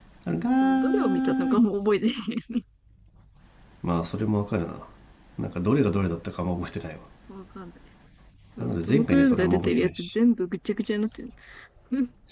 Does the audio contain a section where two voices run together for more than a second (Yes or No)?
Yes